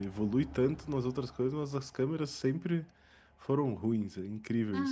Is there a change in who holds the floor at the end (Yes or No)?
Yes